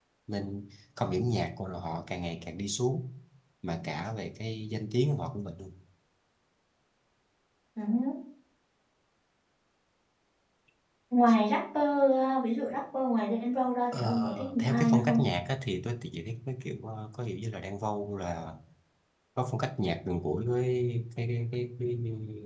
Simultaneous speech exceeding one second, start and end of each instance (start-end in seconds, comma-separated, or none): 13.9-15.2